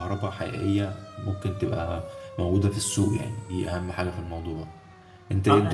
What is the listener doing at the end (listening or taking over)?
taking over